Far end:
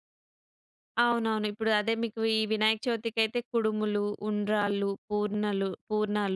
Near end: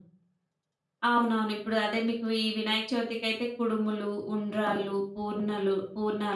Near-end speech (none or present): none